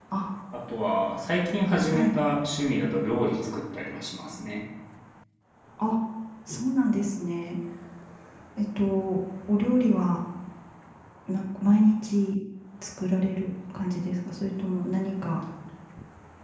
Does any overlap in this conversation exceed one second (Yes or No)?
No